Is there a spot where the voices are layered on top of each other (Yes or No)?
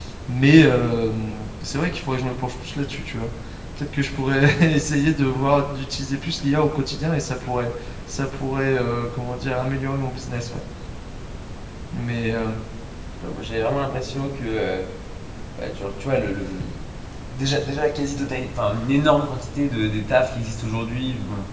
No